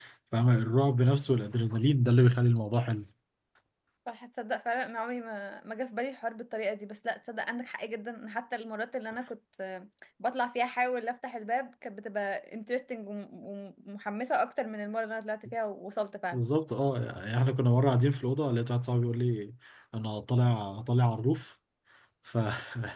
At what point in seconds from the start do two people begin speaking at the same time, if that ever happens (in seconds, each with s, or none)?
none